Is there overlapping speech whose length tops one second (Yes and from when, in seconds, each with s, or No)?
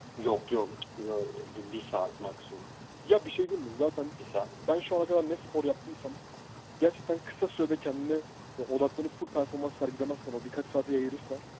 No